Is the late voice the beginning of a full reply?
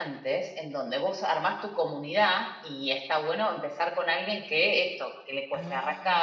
No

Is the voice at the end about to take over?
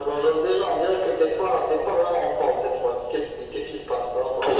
Yes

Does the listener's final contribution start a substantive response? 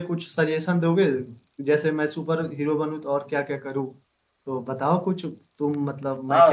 Yes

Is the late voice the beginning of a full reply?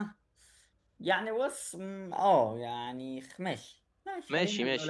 Yes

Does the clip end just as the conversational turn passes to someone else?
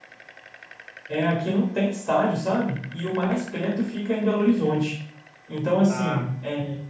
No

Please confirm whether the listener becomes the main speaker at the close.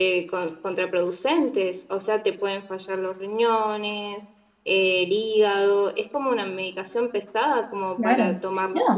Yes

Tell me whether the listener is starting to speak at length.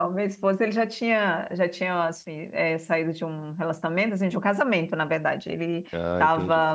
No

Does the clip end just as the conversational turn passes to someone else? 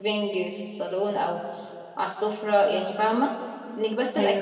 No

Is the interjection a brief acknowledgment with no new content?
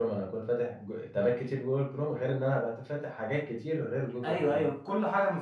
No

